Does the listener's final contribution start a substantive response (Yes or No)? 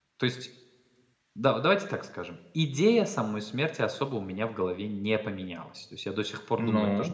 No